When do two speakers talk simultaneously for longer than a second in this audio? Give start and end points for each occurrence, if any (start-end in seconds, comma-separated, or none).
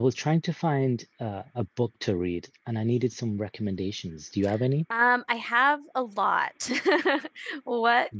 none